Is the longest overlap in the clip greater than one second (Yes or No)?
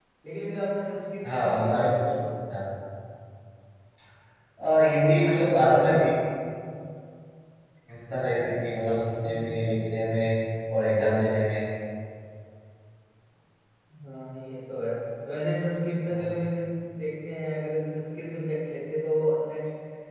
Yes